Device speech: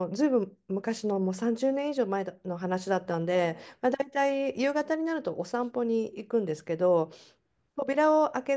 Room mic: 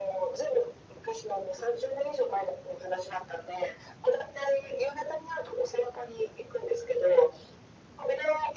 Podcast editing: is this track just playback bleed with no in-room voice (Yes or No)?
Yes